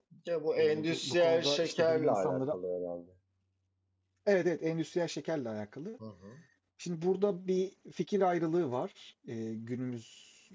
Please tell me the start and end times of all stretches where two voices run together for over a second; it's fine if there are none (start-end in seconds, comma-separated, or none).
0.6-2.5